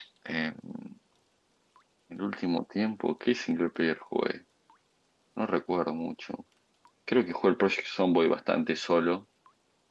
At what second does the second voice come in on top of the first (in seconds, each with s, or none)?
none